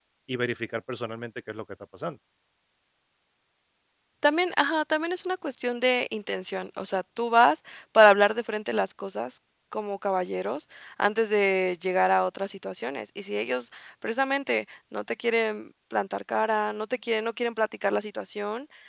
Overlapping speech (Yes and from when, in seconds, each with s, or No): No